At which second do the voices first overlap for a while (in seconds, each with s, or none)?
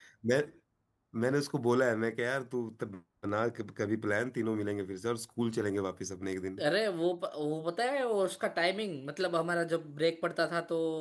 none